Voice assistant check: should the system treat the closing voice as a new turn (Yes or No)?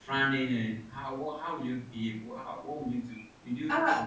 Yes